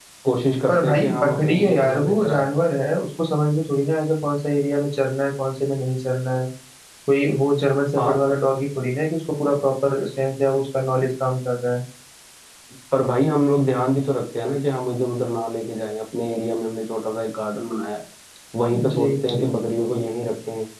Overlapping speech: Yes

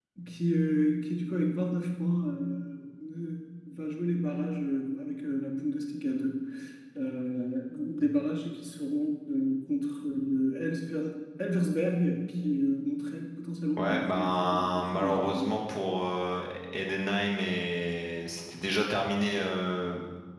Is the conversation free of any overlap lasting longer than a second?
No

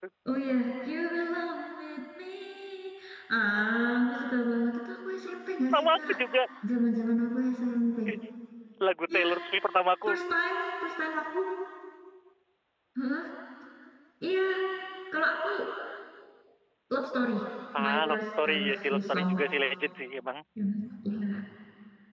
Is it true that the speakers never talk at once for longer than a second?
No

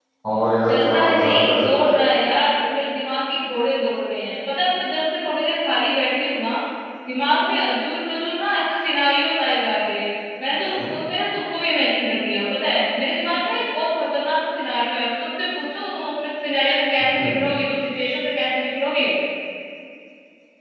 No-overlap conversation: No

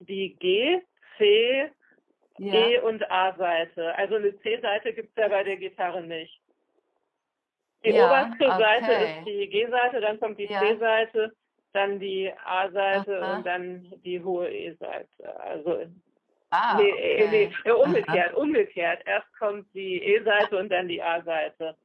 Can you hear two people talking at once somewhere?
Yes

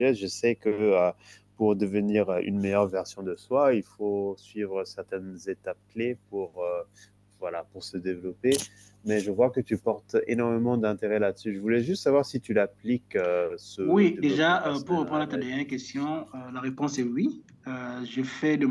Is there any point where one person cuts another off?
Yes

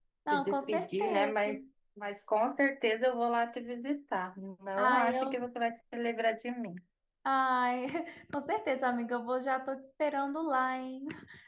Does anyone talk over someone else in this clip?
Yes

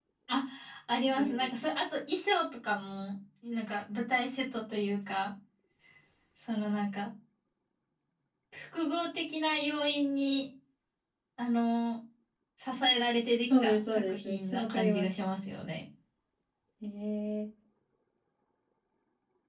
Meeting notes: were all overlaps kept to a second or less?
No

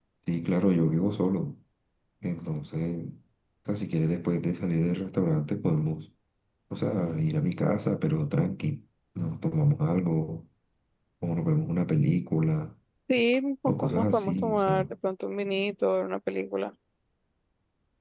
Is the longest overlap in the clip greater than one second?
Yes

